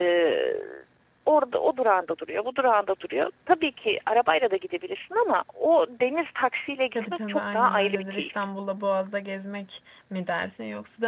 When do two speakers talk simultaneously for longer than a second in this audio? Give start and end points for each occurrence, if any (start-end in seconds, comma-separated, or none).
7.0-8.4